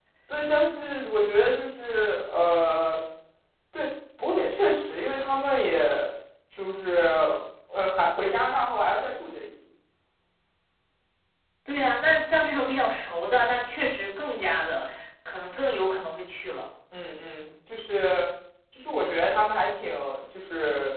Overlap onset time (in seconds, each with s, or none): none